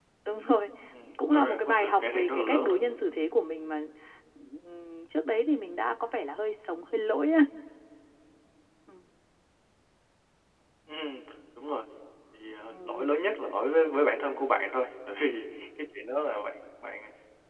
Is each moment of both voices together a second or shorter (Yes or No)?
No